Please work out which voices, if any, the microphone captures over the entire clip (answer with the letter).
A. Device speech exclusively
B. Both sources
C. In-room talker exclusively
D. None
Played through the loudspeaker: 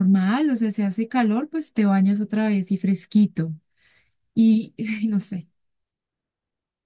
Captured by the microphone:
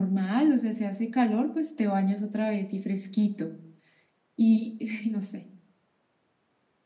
A